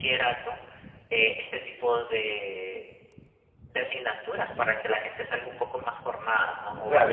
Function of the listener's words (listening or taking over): taking over